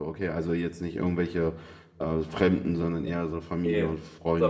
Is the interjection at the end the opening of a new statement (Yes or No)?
Yes